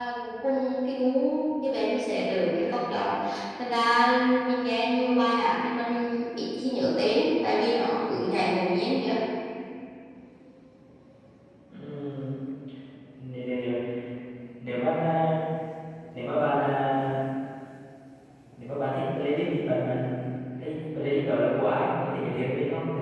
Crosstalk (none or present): none